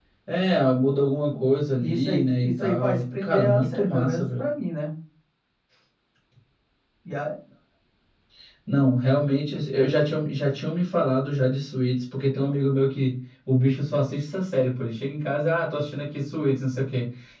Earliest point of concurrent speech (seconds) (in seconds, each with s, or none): 1.8 s